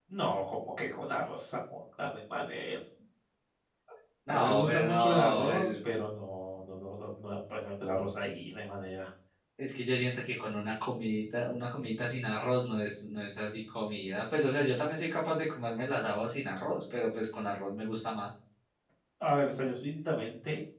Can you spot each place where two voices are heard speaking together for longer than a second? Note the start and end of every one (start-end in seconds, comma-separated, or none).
4.3-5.8